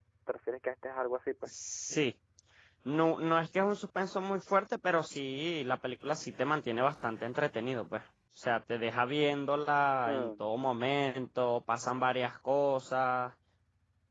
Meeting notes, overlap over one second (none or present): none